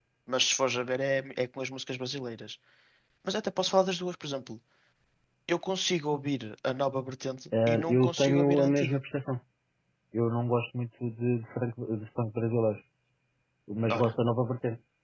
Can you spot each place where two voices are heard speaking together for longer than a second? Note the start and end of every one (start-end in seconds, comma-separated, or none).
7.7-9.0